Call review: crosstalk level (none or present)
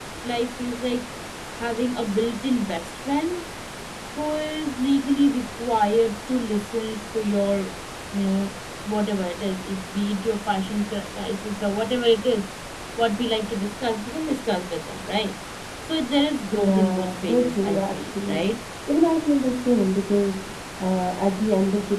present